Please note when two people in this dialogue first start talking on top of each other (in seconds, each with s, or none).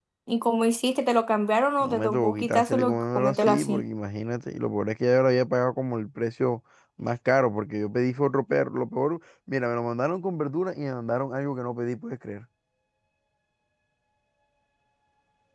1.8 s